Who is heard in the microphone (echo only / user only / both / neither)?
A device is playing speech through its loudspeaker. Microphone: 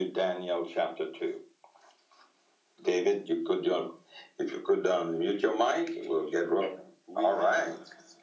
both